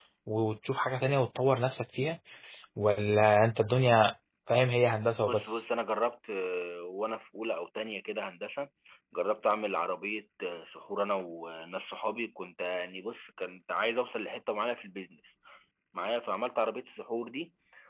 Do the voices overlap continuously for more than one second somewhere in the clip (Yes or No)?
No